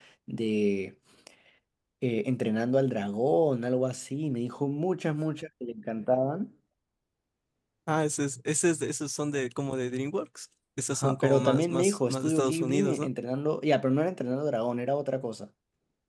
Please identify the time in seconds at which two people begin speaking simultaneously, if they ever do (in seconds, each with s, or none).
10.9 s